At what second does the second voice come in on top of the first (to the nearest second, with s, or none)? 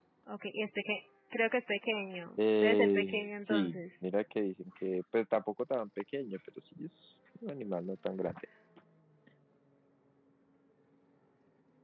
2 s